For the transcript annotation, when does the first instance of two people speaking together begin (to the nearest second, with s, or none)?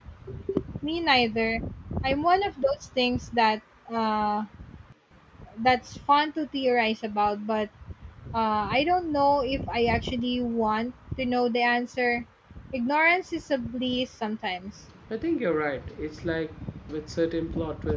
none